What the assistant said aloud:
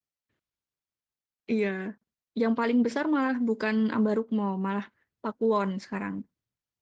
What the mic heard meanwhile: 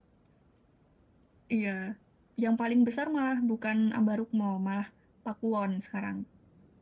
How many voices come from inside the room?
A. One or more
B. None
B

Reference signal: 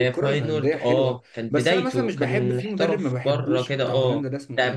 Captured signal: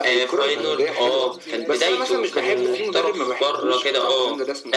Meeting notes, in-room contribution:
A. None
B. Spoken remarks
B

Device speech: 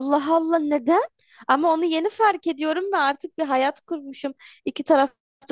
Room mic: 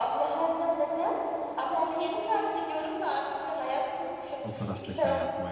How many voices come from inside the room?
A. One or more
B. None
A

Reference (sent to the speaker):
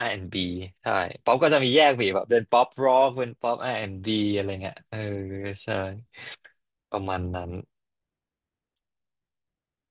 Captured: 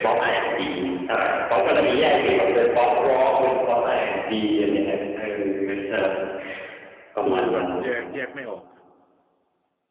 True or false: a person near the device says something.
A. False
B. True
B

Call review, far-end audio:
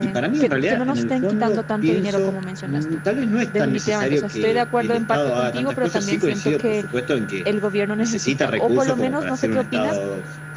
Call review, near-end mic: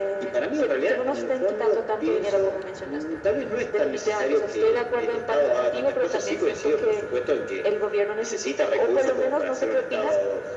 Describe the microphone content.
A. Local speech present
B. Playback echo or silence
B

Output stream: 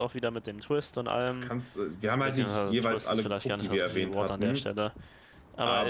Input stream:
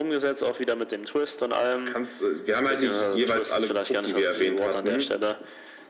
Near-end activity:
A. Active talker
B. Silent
B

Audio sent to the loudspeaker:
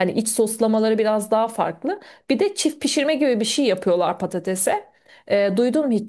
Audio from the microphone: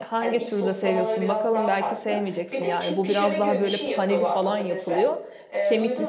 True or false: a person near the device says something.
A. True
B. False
A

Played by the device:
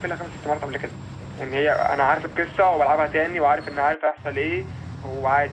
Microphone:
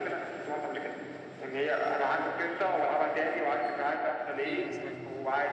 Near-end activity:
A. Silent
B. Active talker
B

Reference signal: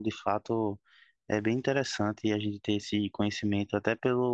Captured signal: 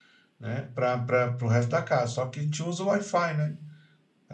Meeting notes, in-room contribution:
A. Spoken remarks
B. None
A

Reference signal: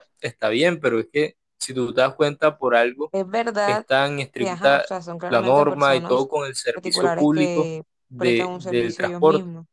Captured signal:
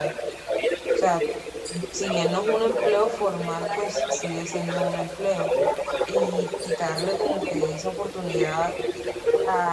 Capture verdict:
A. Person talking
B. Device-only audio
A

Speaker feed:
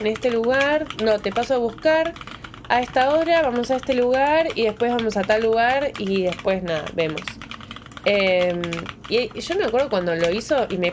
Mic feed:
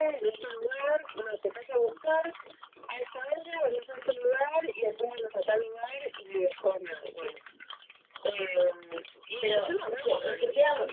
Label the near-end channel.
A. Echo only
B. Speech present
B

